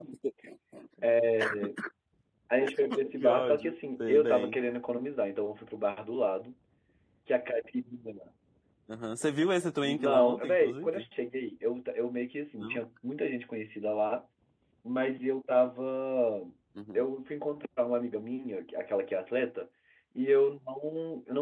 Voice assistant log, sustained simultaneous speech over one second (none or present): present